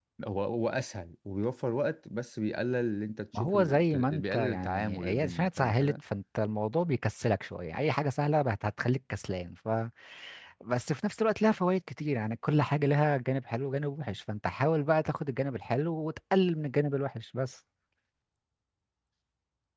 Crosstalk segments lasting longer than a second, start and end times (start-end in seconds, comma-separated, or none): 3.3-5.9